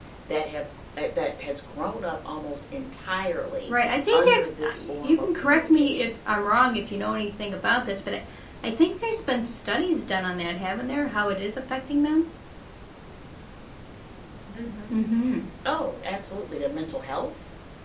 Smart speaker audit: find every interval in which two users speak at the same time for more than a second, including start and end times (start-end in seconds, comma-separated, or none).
4.1-6.1